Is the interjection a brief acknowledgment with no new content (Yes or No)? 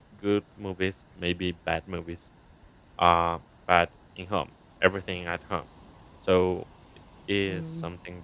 No